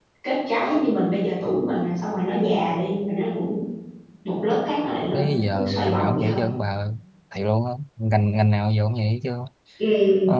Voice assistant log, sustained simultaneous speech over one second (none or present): present